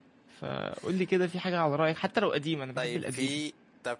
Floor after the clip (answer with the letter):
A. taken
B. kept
A